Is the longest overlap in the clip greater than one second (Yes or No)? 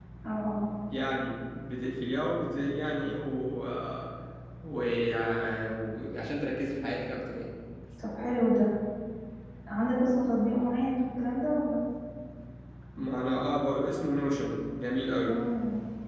No